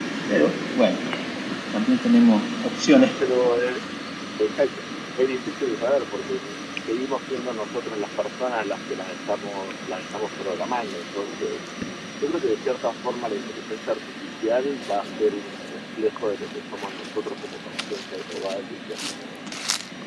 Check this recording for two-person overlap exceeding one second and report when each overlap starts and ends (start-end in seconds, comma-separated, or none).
none